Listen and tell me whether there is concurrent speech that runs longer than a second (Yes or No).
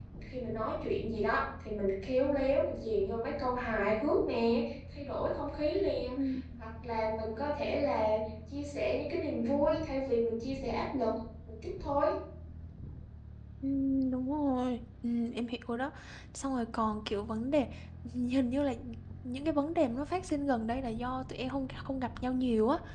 No